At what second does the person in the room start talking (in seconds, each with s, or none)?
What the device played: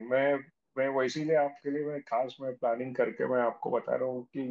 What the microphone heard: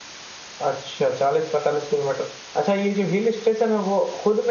0.6 s